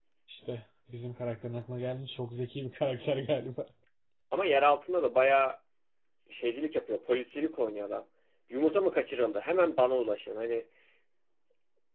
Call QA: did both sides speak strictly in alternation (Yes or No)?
Yes